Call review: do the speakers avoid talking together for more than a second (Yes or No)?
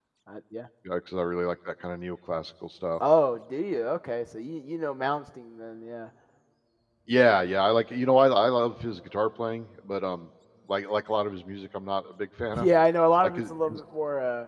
Yes